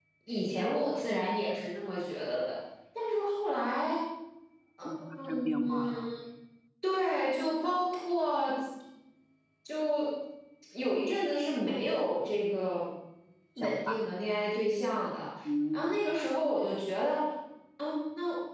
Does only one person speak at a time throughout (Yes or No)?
No